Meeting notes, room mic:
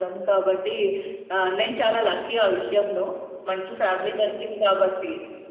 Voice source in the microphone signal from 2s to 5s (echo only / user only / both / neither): echo only